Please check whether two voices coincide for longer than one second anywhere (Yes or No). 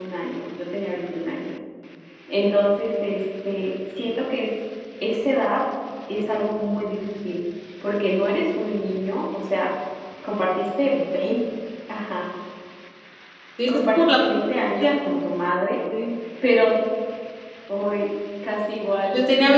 No